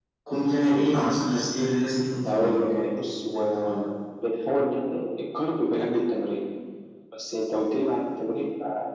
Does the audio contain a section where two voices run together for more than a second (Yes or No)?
No